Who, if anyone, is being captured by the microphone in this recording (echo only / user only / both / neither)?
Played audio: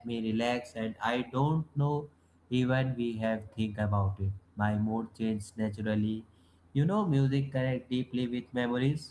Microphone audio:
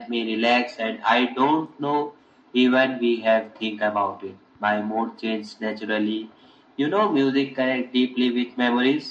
echo only